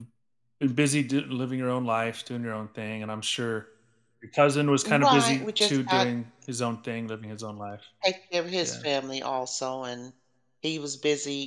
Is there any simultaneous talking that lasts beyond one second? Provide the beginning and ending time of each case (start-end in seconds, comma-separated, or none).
4.8-6.1